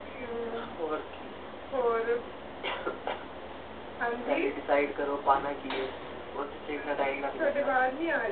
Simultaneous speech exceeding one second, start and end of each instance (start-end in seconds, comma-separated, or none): none